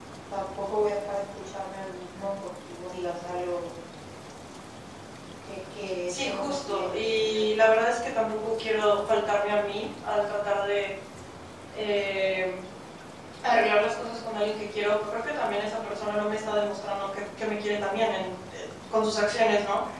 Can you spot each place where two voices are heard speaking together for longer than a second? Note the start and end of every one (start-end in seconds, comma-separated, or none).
6.1-7.5